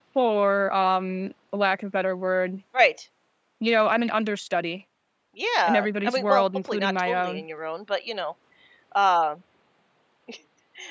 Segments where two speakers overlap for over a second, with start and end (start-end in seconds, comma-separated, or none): 5.6-7.4